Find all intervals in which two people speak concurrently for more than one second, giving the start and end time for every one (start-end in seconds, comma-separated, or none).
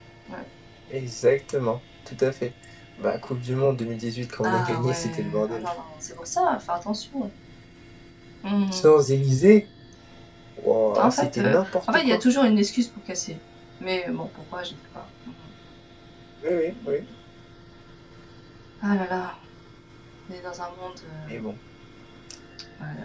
4.4-5.6, 11.0-12.2